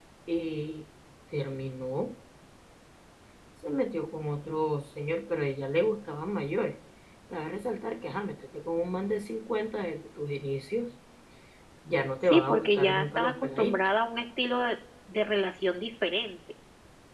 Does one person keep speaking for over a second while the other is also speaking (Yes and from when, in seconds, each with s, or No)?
Yes, from 12.3 s